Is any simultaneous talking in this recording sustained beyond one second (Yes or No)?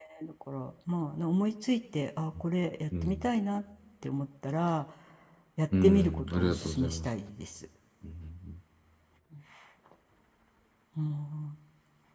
Yes